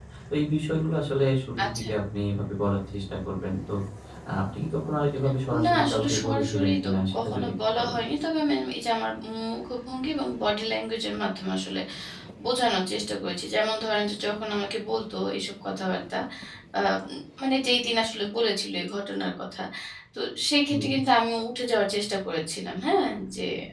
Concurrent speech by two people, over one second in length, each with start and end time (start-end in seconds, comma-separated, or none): 5.6-8.0